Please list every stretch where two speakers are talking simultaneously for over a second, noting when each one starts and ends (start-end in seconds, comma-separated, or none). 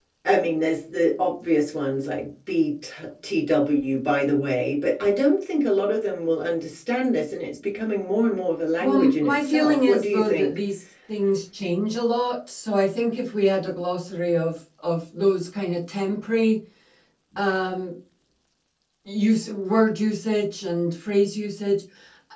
8.8-10.6